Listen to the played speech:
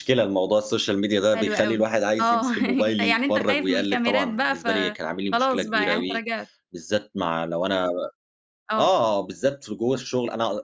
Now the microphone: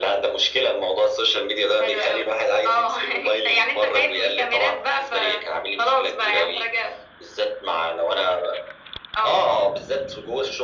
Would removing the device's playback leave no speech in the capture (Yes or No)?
Yes